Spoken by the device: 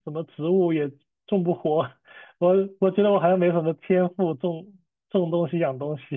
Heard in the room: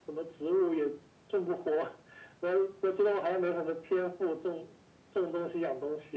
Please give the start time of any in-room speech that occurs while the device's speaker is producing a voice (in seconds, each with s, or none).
none